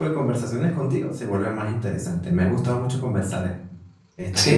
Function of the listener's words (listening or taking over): taking over